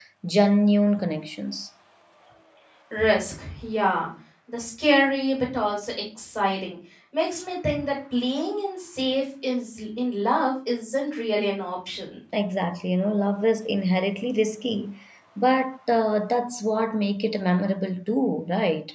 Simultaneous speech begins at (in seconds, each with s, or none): none